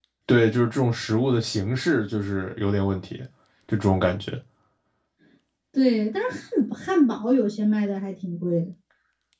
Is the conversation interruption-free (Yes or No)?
Yes